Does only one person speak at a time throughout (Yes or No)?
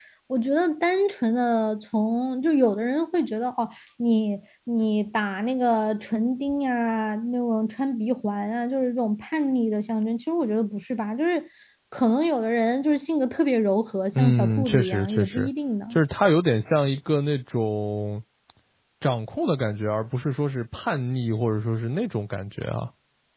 No